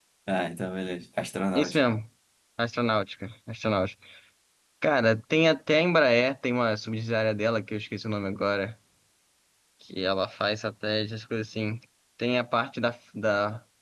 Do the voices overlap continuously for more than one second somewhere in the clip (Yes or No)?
No